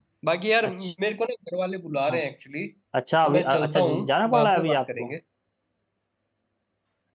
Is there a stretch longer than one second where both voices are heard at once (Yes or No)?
Yes